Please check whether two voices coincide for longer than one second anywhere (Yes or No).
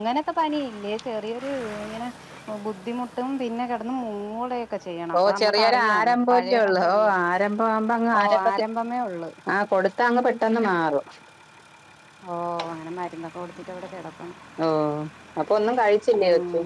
Yes